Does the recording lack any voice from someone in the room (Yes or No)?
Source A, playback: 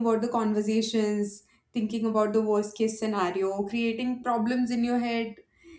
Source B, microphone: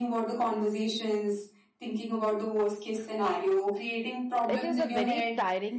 No